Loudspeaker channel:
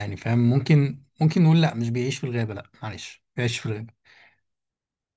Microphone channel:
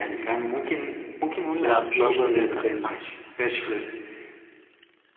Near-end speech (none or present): present